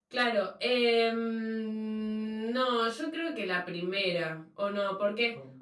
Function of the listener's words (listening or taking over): listening